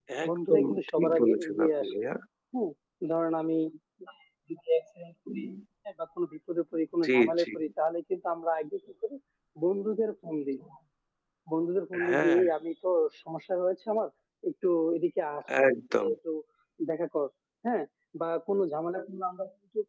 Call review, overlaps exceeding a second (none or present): present